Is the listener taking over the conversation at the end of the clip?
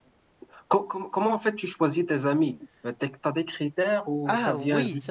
Yes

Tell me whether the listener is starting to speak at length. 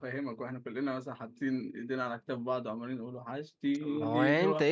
Yes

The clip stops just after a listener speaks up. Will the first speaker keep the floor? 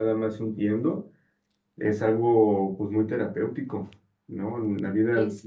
Yes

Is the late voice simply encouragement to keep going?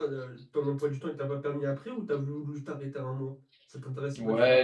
No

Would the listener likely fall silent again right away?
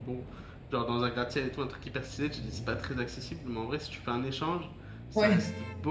Yes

